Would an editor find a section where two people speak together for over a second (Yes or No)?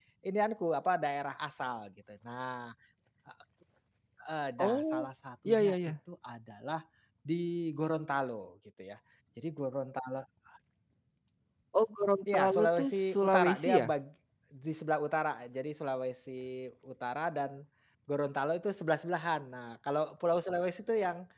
Yes